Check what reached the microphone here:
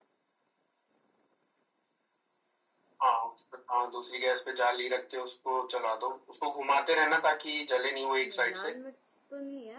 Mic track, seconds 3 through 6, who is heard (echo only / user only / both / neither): echo only